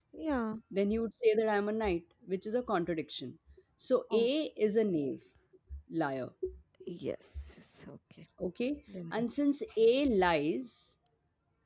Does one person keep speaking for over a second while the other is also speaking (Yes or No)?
No